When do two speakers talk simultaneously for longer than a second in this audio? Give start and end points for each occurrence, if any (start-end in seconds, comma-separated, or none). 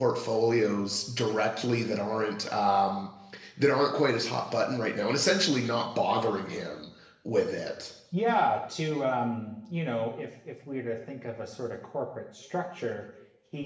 none